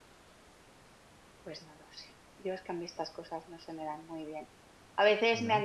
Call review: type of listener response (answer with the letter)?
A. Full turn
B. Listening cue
B